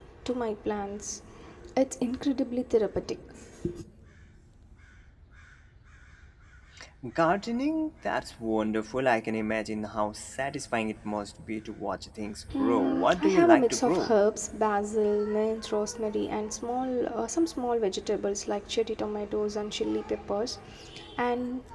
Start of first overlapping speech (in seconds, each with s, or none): 12.5 s